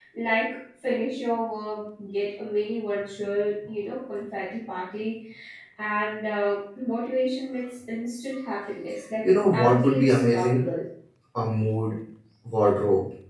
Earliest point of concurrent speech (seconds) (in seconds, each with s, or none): 9.2 s